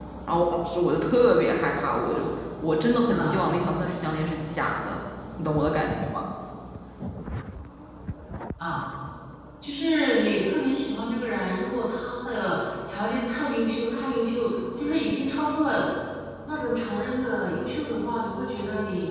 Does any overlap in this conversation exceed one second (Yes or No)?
No